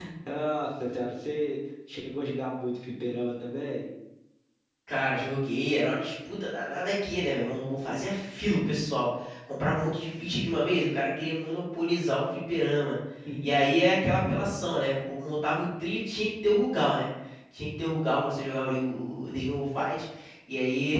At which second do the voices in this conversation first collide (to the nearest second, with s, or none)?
none